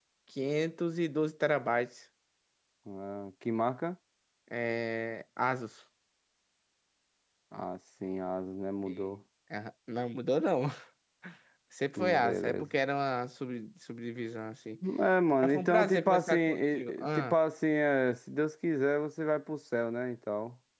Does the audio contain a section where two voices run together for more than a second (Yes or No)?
Yes